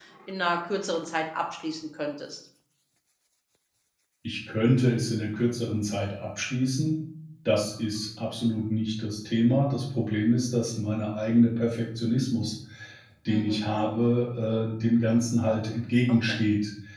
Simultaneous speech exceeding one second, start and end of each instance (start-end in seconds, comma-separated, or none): none